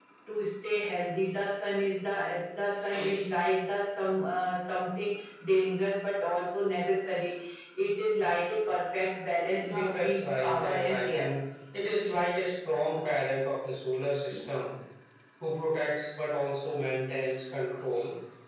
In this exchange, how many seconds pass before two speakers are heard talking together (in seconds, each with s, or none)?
9.6 s